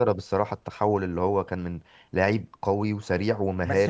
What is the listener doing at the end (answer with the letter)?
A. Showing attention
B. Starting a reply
B